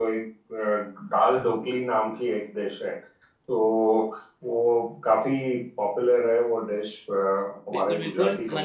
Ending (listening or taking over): taking over